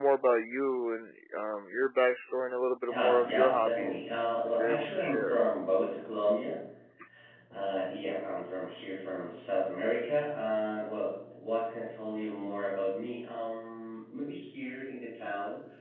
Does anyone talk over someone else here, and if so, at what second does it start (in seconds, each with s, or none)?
2.9 s